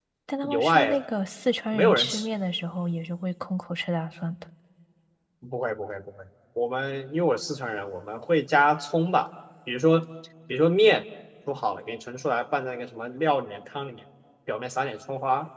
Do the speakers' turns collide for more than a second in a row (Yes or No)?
No